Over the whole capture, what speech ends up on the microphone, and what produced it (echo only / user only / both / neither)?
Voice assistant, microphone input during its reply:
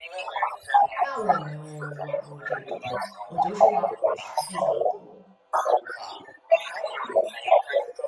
both